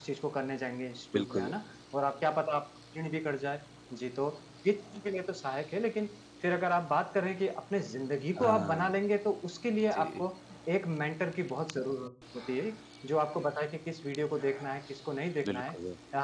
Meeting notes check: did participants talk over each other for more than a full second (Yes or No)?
No